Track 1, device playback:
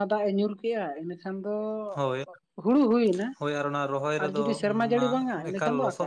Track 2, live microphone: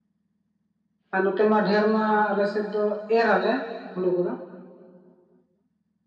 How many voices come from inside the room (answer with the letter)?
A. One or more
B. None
A